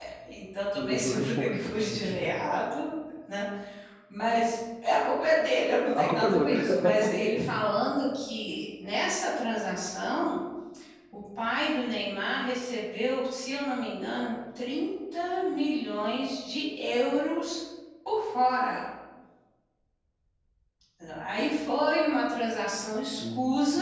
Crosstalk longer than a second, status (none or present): present